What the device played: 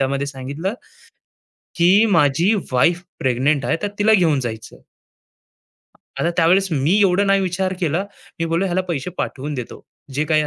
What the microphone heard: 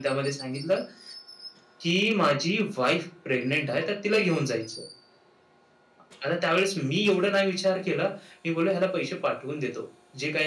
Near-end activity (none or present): none